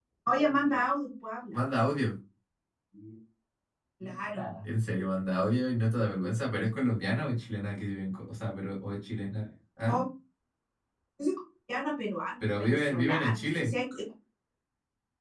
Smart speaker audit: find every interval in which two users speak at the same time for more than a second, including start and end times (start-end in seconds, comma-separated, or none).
12.4-13.7